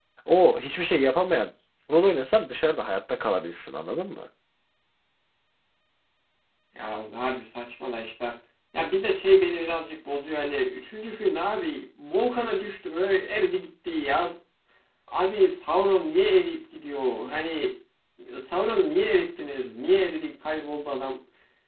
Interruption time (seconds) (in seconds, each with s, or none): none